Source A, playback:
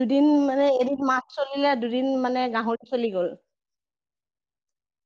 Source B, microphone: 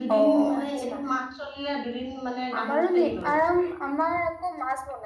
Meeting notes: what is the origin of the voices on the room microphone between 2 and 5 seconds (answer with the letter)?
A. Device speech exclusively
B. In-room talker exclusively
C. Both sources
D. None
C